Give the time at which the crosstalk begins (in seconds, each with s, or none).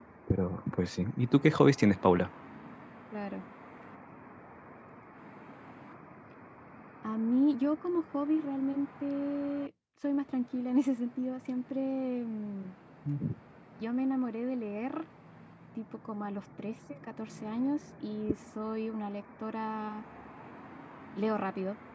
none